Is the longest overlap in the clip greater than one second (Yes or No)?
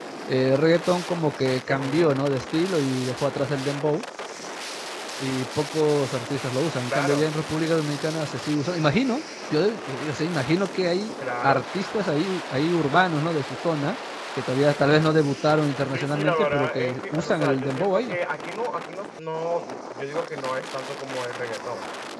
Yes